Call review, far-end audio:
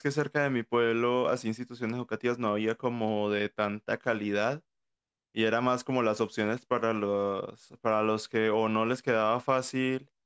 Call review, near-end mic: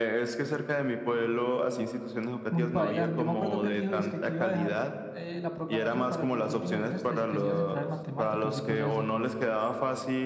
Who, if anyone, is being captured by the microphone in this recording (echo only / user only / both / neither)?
both